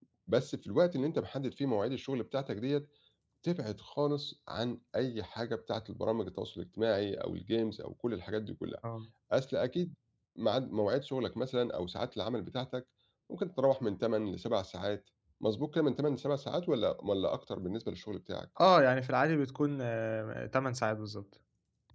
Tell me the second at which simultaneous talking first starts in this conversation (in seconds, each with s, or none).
none